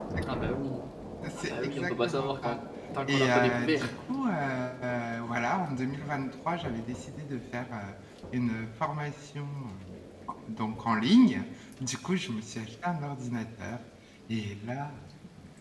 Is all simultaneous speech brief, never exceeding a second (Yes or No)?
No